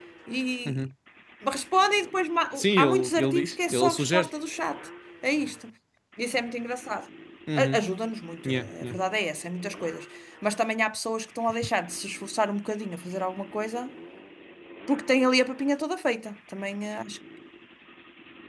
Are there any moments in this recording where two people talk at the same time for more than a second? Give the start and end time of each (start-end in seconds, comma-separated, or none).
2.6-4.3